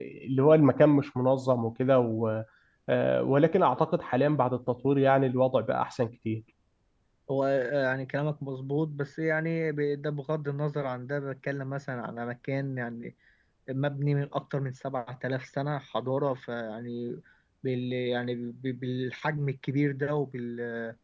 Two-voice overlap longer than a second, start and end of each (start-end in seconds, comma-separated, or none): none